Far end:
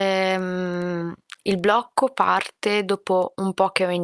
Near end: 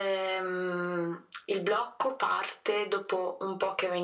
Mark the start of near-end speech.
none

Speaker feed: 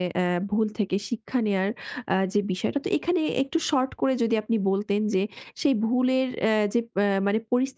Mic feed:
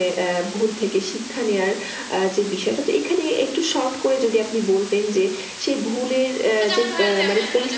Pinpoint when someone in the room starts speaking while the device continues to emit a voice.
6.6 s

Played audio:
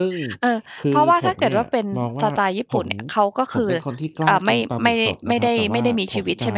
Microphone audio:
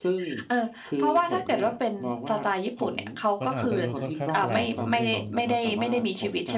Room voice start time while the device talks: 3.4 s

